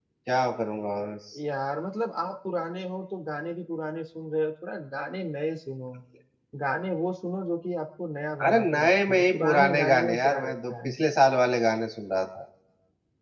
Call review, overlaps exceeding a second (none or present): present